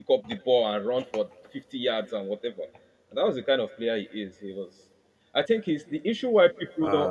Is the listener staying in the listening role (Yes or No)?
Yes